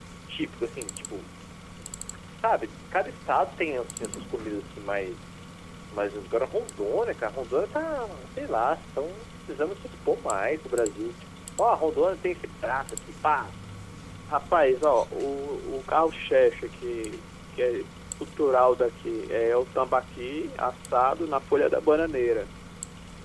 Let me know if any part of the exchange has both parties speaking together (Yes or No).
No